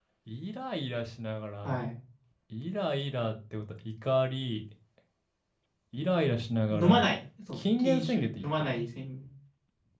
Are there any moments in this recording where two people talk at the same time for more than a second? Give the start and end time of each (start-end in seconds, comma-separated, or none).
7.5-8.7